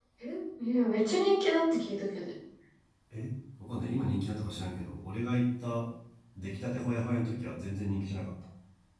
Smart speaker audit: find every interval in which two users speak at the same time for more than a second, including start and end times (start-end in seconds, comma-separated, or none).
none